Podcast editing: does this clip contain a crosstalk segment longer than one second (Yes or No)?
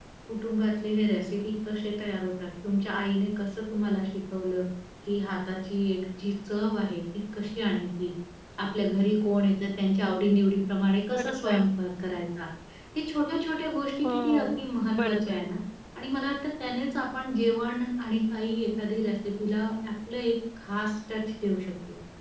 Yes